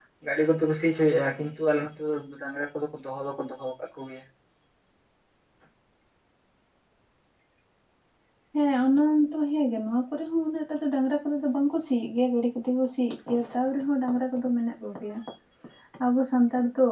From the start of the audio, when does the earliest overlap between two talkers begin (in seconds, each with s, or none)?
none